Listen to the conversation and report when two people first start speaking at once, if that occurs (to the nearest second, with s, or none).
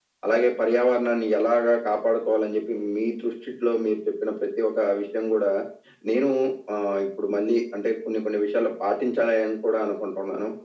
none